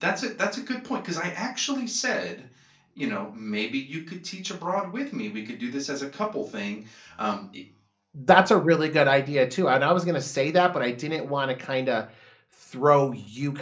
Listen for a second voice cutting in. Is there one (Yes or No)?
No